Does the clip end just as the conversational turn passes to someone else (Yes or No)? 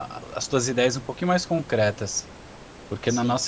No